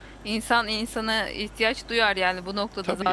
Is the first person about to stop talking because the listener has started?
No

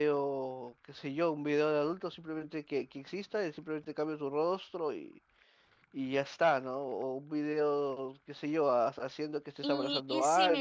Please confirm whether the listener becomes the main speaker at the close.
Yes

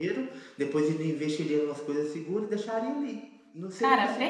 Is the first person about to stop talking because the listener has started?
No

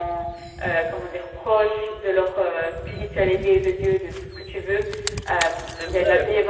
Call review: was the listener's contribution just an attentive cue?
Yes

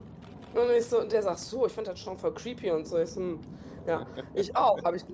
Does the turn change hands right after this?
No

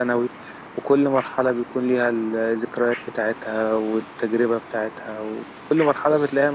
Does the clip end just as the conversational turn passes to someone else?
Yes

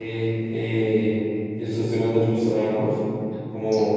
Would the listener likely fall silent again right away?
Yes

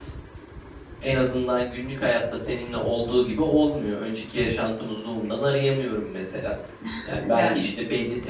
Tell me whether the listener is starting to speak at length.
No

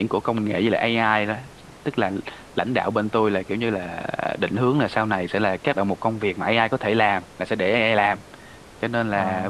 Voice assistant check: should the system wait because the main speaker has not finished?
Yes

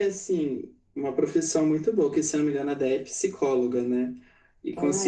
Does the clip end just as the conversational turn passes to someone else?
No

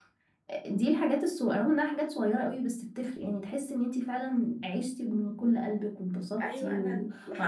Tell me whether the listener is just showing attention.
No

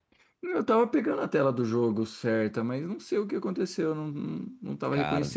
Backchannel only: Yes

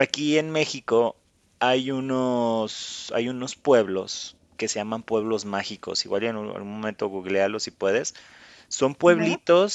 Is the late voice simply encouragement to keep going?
Yes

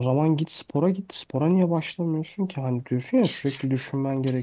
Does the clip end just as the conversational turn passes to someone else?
No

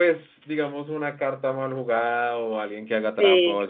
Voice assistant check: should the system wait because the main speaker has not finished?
Yes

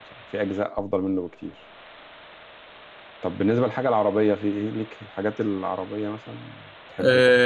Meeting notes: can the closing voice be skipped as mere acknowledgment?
No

